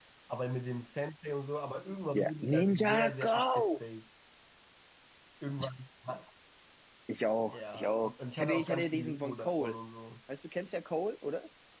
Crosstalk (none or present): present